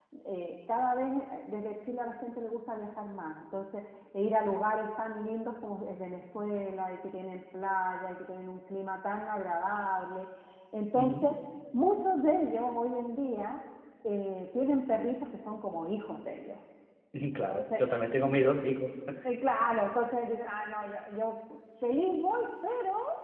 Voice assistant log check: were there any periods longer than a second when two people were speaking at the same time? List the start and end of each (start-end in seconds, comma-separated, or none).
none